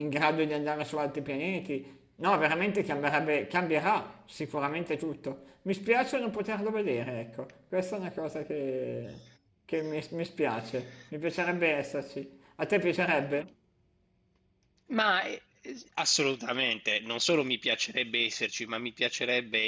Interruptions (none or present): none